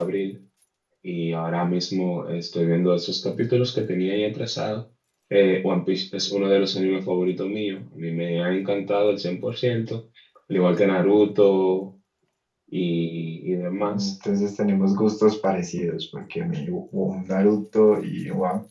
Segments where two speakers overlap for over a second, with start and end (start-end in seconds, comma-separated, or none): none